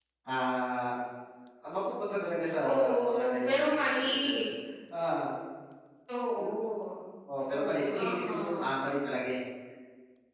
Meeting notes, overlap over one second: present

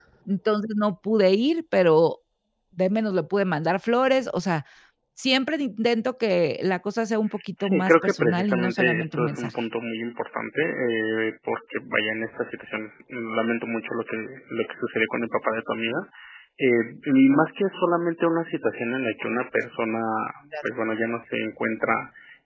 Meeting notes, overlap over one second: present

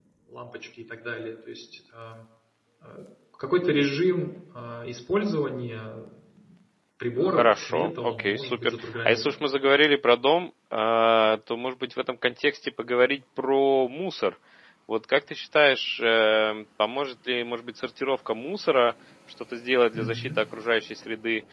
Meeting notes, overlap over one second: present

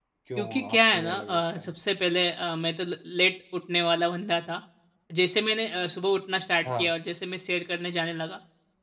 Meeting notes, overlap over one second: present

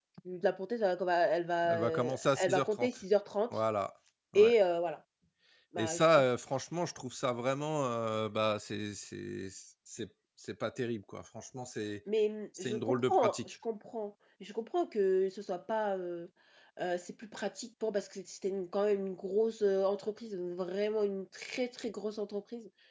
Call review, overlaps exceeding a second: present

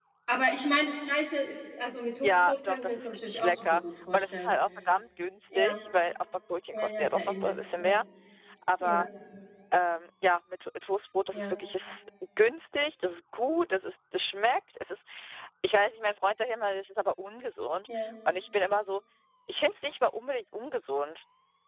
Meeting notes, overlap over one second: present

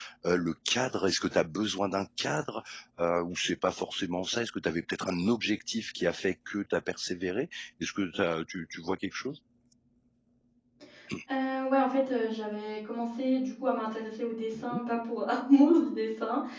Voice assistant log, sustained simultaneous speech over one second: none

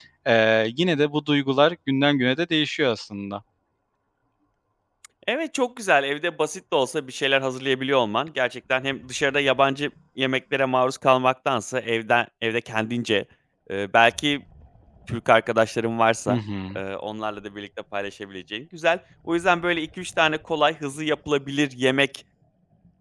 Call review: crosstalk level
none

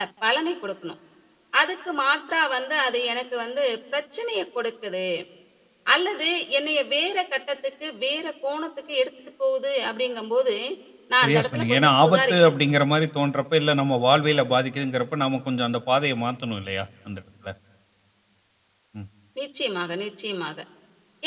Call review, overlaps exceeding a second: present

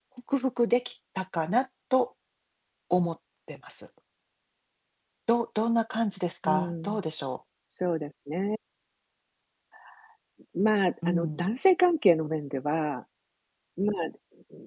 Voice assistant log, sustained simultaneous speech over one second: none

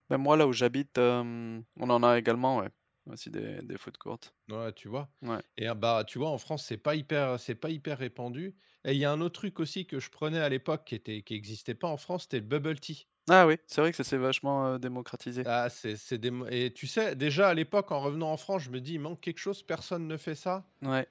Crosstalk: none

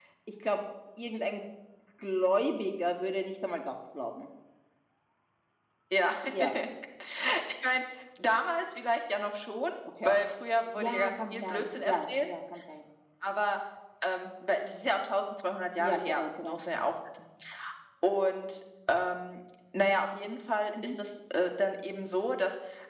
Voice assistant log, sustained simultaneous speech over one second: present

